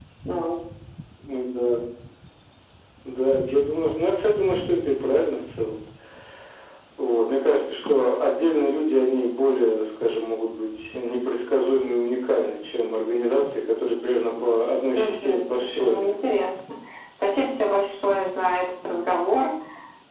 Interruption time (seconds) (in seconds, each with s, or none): 15.0 s